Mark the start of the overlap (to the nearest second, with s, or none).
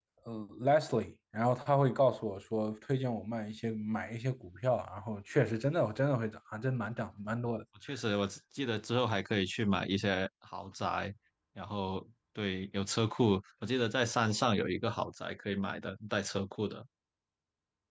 none